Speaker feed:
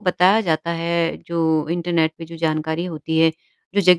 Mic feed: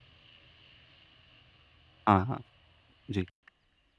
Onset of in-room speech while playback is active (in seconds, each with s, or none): 2.1 s